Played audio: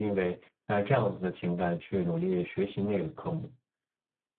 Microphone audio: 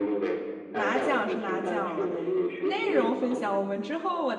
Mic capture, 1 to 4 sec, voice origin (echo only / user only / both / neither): both